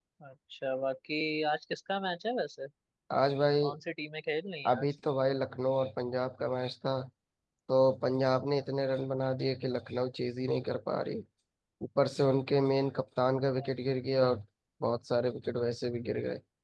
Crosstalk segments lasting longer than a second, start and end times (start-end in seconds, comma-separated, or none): none